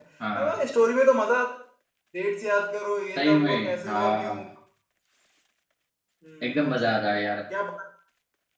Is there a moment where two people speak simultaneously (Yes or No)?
Yes